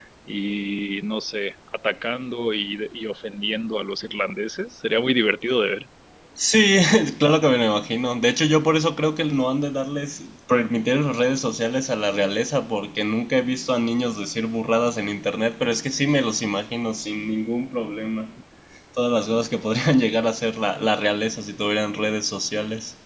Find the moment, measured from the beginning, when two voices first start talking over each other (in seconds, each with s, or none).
none